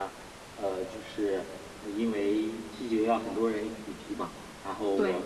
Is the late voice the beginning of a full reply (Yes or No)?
No